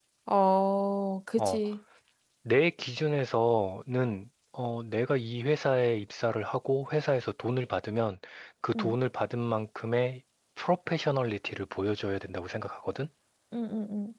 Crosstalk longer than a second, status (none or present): none